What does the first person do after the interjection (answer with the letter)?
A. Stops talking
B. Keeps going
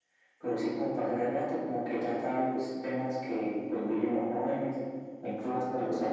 B